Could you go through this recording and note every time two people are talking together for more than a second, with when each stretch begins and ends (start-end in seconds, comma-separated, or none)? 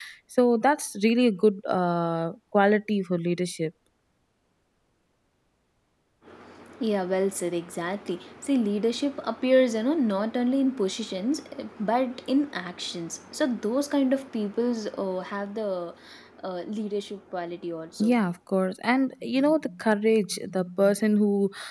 none